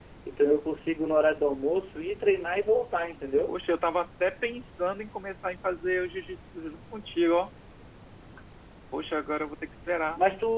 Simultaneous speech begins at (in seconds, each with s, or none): none